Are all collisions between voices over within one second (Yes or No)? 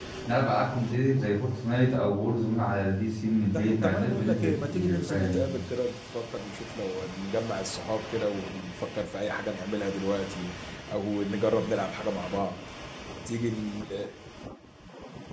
No